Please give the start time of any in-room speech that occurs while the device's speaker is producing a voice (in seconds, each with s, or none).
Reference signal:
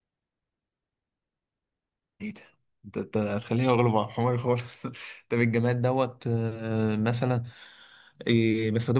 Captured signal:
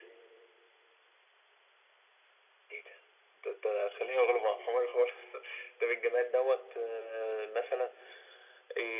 none